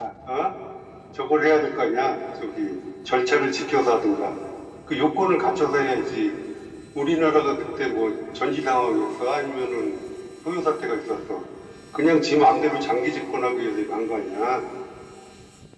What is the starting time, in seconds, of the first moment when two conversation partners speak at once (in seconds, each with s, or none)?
none